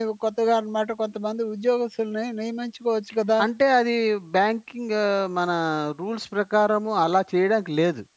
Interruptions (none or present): none